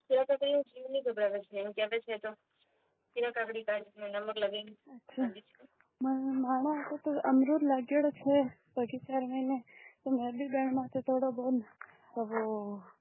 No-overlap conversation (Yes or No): Yes